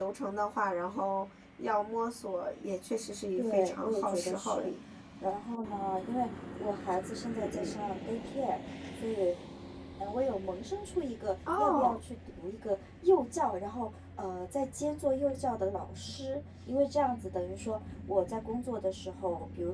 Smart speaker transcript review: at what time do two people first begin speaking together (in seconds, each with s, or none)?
3.4 s